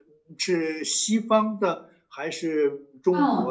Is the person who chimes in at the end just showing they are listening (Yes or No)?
No